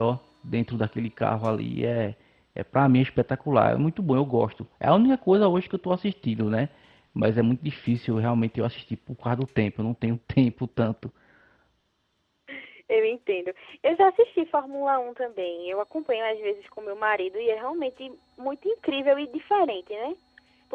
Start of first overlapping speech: none

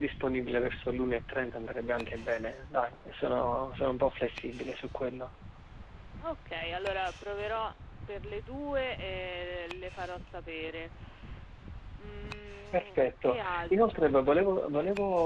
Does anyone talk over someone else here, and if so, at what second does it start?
12.7 s

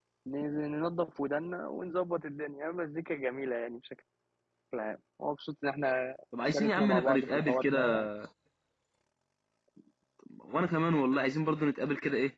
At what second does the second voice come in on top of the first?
6.3 s

